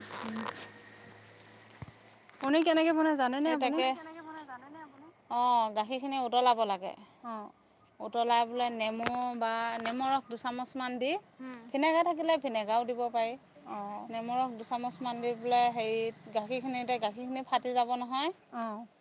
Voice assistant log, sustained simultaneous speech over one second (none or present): none